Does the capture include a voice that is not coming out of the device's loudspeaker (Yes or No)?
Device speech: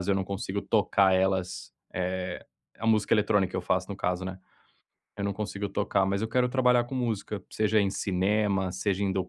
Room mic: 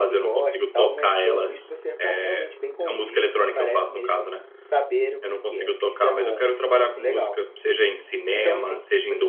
Yes